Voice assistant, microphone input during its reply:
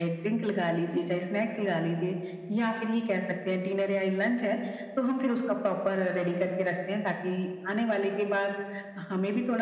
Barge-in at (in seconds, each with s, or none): none